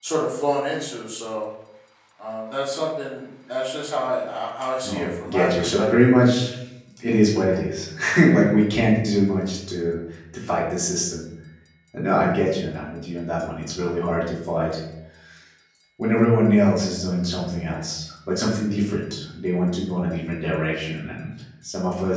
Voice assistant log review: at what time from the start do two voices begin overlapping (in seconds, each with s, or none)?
4.8 s